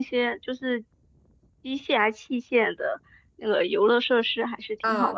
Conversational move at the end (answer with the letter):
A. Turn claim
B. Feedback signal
A